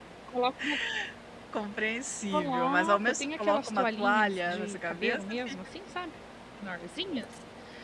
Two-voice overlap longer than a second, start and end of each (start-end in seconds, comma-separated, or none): 2.3-5.7